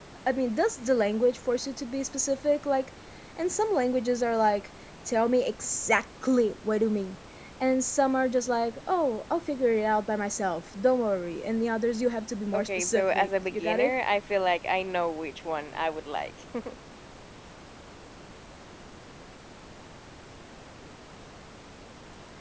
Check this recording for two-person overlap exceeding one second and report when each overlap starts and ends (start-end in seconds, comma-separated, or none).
12.5-13.9